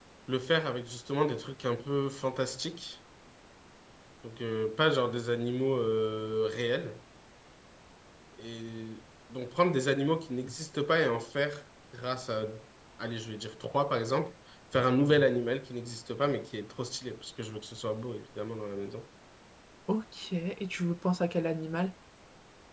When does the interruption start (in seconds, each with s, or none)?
none